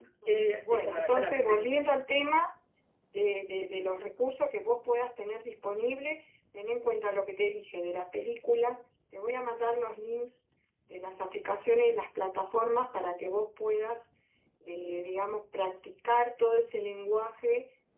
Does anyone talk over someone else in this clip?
Yes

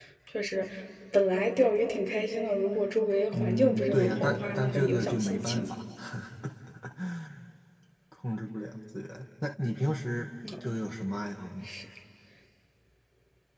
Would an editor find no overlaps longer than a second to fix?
No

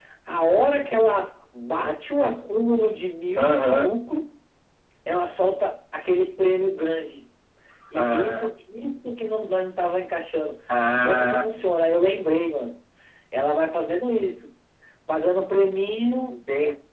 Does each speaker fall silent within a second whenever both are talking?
Yes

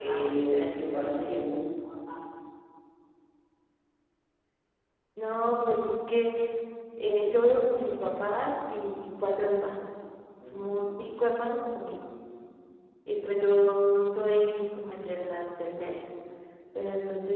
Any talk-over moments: Yes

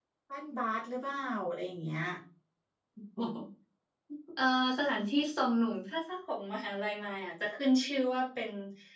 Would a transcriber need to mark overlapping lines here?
No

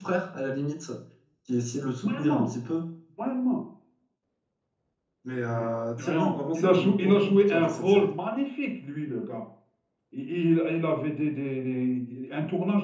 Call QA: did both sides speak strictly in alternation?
No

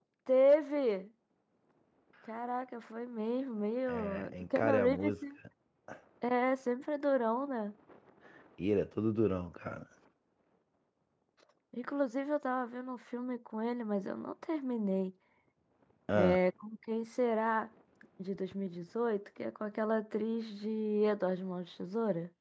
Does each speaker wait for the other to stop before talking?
No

